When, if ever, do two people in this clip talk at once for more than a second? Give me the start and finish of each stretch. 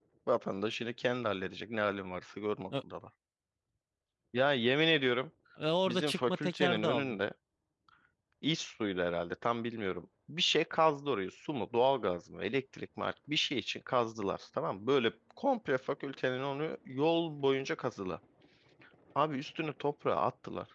5.9-7.2

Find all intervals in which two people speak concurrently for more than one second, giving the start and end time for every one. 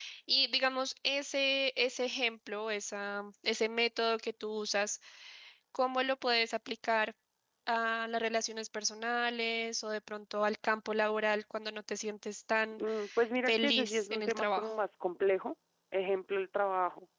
13.5-14.7

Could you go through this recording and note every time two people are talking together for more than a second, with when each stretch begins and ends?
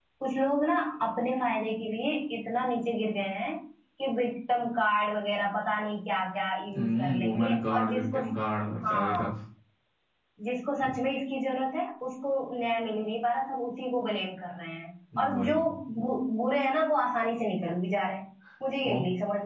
6.7-8.2

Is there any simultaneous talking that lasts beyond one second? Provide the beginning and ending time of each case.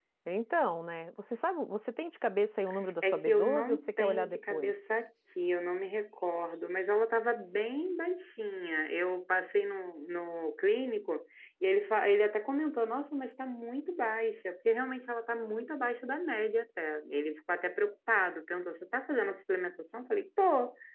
3.0-4.7

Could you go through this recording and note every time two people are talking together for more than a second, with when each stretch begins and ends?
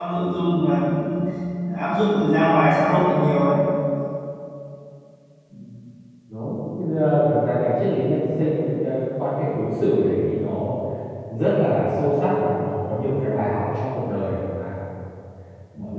none

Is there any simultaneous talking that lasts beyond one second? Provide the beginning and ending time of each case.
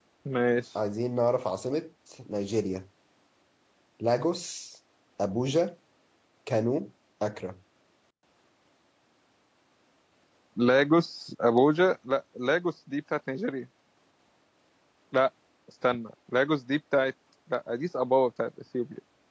none

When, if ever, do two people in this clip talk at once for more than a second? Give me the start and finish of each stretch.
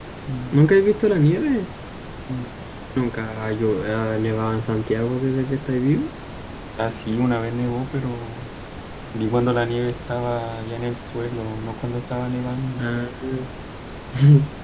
none

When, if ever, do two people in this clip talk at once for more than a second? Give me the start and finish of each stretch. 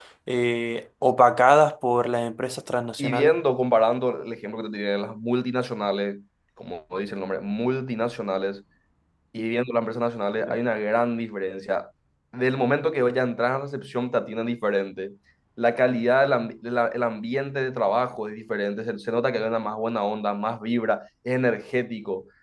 none

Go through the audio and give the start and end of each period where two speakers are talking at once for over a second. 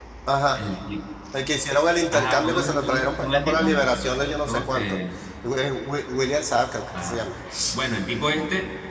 2.1-3.9

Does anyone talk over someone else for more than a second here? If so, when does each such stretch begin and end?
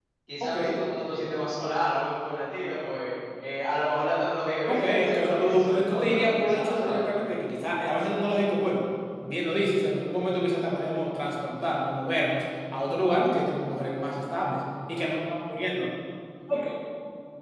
4.7-7.0

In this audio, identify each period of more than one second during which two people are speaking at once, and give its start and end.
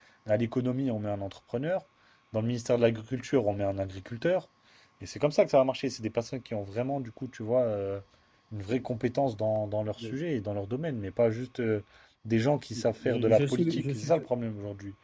12.8-14.2

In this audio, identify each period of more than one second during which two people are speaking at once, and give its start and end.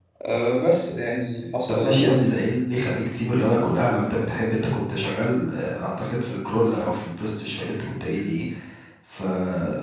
none

